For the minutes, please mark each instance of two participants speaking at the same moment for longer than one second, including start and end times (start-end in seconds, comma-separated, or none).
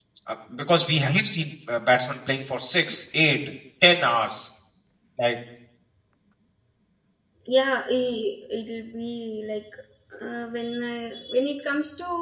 none